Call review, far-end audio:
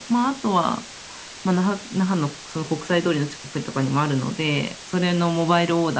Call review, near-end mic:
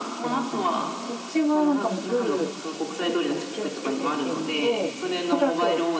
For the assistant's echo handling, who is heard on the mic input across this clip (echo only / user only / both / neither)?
both